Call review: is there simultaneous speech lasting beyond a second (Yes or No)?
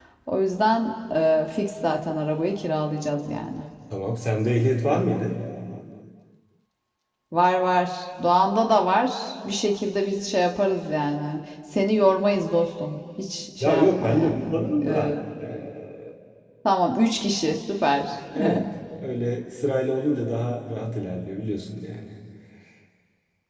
Yes